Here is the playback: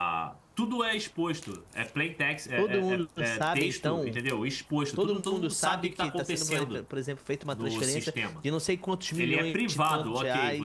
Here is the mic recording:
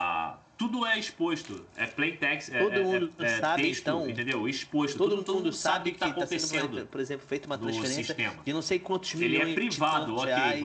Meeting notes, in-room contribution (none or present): none